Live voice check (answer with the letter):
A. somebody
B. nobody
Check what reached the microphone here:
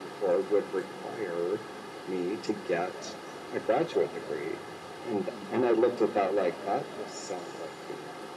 B